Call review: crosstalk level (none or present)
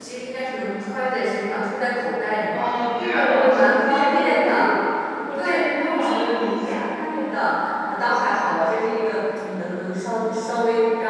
present